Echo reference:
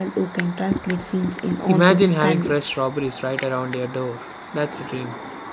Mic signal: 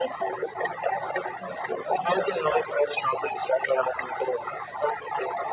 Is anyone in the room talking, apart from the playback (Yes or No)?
No